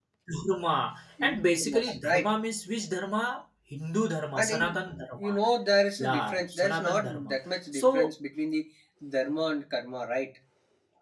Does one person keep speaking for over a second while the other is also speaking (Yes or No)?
Yes